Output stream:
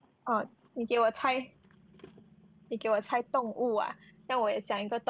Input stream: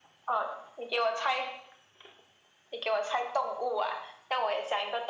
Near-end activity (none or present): none